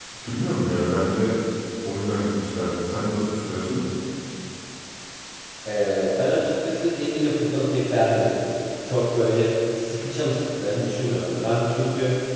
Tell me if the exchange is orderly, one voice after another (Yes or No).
Yes